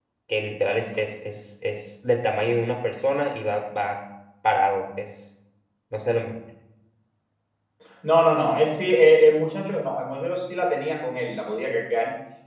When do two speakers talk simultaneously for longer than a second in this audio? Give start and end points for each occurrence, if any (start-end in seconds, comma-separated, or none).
none